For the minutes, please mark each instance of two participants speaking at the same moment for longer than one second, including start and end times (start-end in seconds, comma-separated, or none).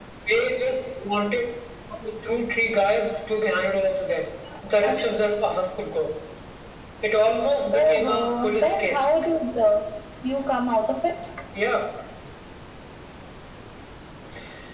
7.7-9.1